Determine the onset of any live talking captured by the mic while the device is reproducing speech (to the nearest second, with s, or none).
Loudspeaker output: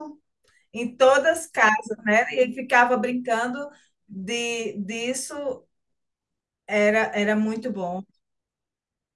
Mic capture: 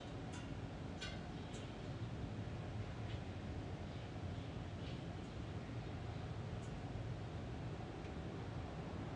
none